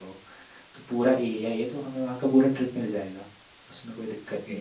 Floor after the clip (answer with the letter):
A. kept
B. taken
B